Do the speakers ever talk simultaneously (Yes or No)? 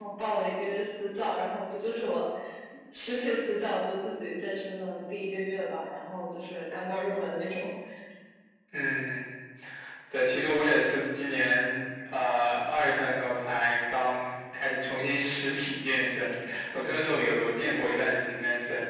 No